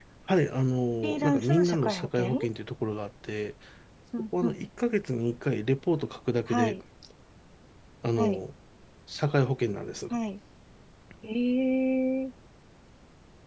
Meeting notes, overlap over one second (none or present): present